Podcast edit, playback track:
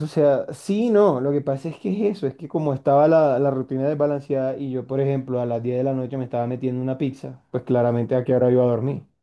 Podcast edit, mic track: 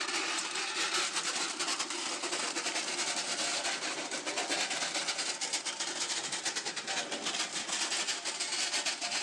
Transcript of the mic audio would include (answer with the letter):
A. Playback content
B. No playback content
B